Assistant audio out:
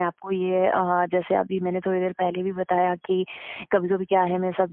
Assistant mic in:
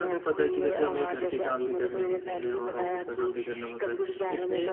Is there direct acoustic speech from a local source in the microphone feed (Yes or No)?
Yes